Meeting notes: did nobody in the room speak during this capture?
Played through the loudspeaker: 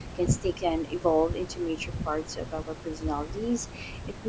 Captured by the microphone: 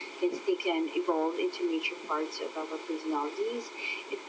Yes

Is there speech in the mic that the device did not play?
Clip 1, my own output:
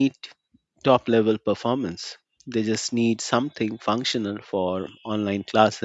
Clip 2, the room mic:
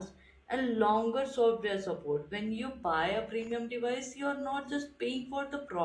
Yes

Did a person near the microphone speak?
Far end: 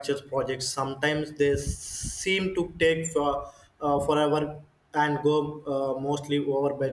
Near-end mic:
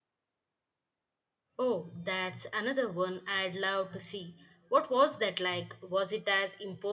Yes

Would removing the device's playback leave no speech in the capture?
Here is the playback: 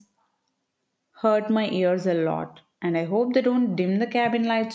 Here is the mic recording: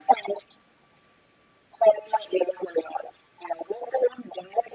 Yes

